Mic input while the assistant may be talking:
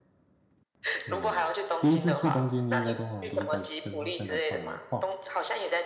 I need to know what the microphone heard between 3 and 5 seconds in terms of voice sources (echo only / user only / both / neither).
both